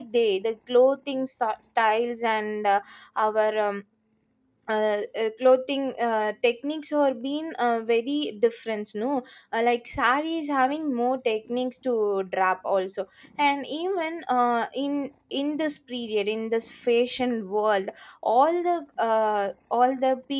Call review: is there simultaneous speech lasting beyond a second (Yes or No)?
No